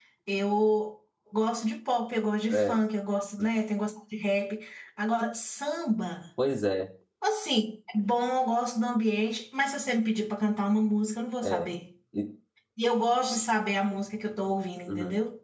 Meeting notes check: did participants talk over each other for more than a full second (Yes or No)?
No